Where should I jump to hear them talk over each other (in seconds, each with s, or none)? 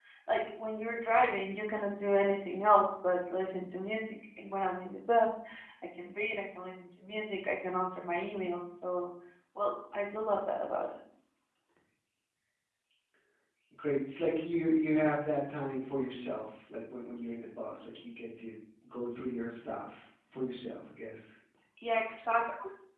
none